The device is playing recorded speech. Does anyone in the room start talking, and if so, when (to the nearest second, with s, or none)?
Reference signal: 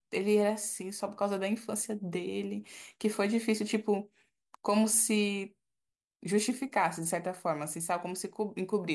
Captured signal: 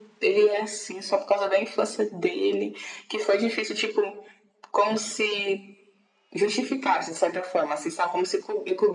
none